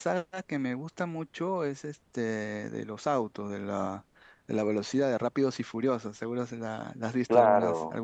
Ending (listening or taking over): taking over